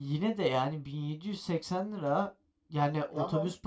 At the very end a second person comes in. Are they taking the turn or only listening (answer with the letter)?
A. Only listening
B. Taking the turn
A